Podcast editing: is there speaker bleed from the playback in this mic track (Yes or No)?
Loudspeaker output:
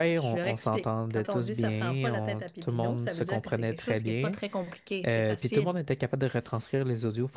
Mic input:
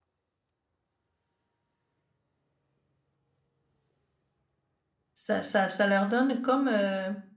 No